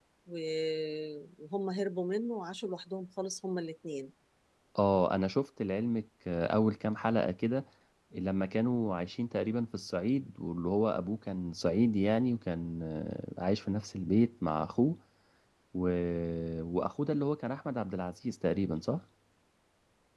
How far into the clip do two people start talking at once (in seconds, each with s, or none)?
none